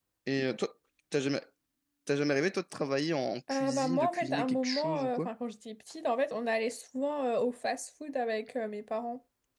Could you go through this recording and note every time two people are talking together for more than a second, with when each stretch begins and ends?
3.5-5.3

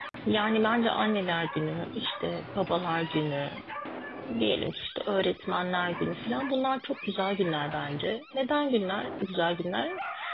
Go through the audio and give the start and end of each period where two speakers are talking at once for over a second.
none

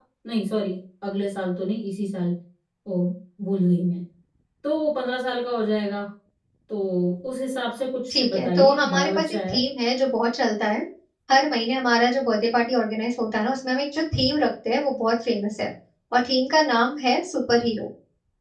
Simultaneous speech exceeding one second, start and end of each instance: 8.1-9.6

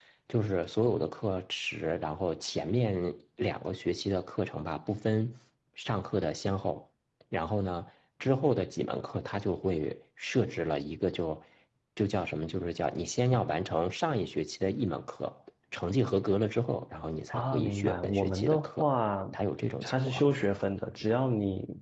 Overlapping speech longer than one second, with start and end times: 17.3-18.9

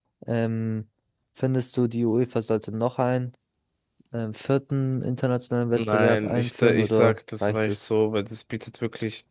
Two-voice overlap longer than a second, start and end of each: 5.8-7.9

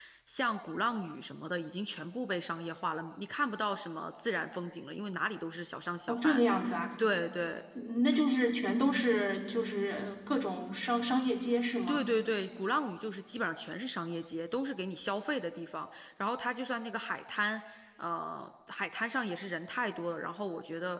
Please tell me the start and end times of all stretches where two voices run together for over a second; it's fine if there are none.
none

